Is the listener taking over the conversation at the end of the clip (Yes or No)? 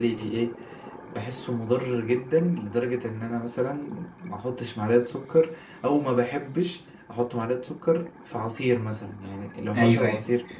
No